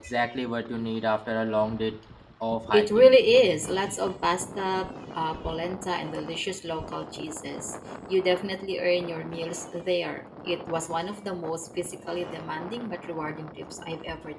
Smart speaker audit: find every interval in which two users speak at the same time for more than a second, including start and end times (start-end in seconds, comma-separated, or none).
none